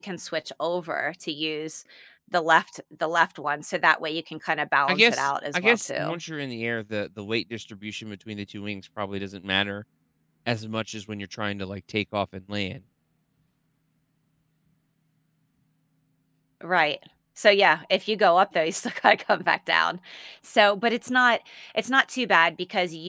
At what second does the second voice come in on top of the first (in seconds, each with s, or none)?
4.9 s